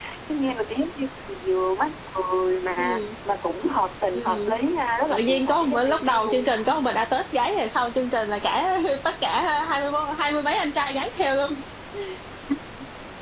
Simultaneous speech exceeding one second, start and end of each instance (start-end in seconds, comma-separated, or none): 5.1-6.5